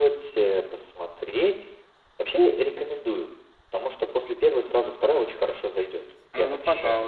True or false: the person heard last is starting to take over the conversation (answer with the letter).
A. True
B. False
A